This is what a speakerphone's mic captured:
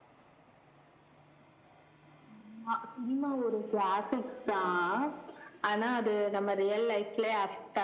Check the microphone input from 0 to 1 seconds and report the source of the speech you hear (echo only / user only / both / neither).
neither